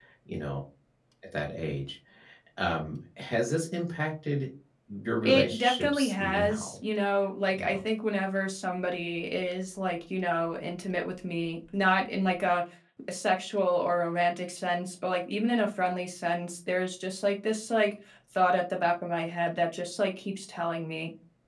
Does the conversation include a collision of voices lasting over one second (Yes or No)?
Yes